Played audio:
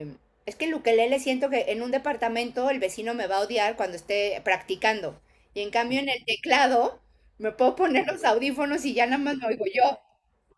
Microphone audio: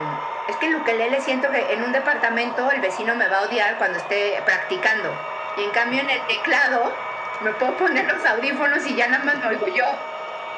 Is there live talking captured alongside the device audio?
No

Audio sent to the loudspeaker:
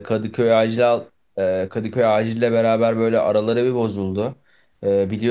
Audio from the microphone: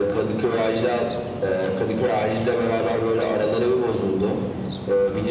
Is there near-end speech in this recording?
No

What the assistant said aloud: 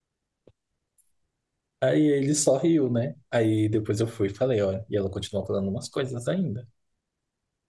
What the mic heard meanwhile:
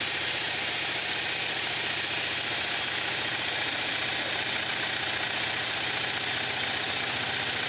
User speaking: No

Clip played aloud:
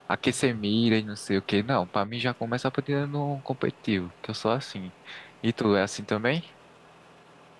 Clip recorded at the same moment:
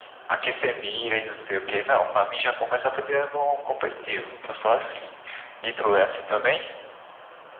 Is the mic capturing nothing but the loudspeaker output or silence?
Yes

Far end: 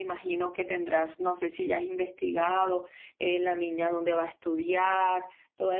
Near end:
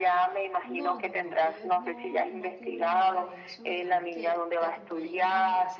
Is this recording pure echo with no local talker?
No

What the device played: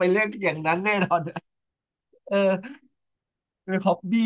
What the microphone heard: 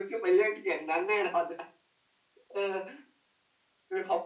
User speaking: No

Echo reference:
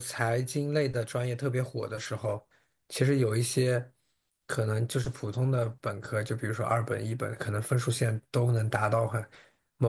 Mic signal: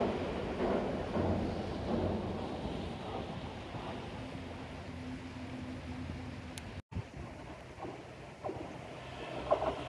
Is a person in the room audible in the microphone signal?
No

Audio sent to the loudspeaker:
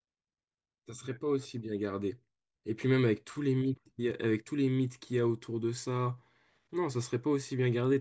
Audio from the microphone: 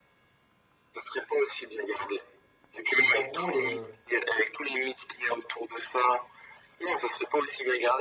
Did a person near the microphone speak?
Yes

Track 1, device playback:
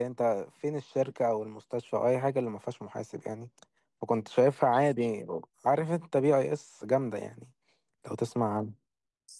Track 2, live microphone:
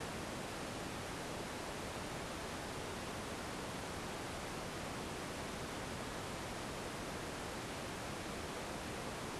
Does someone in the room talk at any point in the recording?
No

